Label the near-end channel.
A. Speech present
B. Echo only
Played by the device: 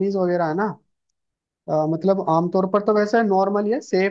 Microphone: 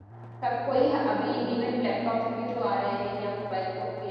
A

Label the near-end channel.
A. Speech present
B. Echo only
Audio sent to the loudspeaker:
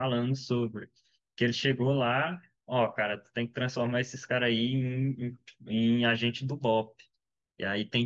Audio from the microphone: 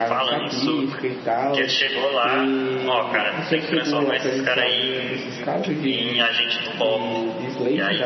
A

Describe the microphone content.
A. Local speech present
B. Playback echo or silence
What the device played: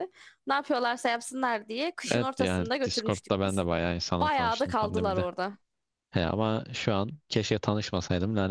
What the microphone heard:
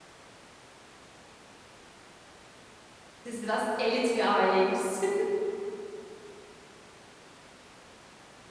A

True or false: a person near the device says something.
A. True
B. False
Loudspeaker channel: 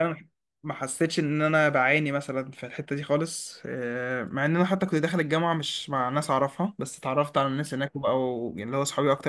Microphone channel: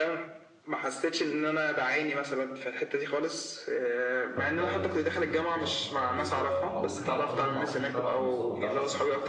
A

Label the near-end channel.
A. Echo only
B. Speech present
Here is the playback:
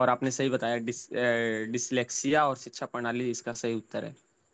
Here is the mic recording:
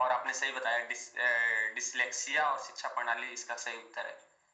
A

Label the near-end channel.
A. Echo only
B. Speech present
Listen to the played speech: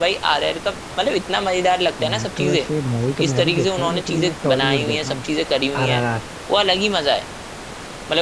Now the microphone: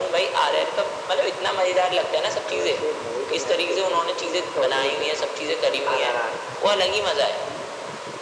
A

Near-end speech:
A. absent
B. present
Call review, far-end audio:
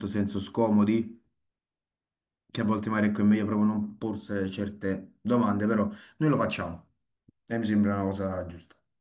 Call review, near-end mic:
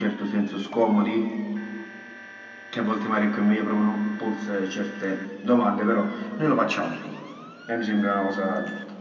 A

